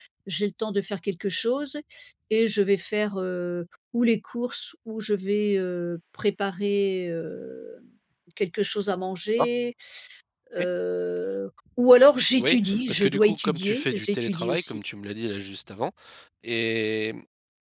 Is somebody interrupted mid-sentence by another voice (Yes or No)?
Yes